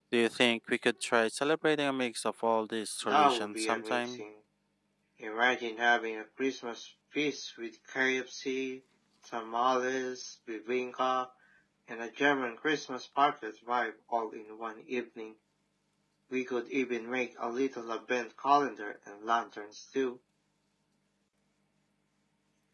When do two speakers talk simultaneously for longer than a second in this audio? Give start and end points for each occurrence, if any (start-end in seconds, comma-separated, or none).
3.0-4.2